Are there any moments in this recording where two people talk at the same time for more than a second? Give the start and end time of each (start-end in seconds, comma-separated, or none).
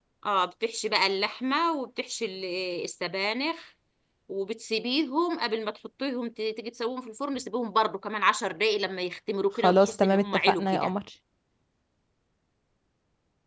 9.6-10.9